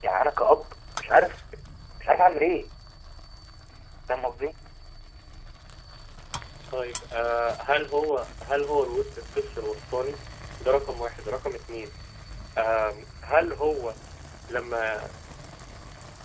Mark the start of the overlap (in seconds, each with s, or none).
none